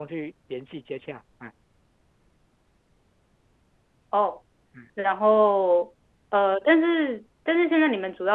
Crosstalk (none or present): none